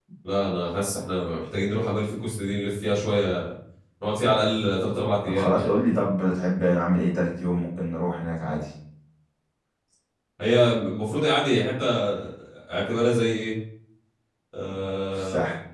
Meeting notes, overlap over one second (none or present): none